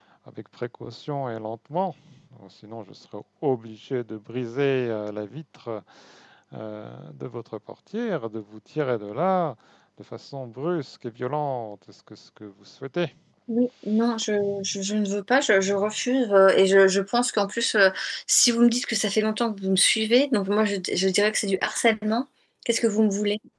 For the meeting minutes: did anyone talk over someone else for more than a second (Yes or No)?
No